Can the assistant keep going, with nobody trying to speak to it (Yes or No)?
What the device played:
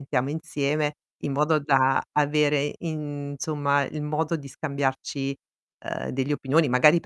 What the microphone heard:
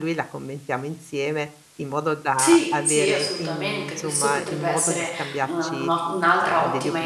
No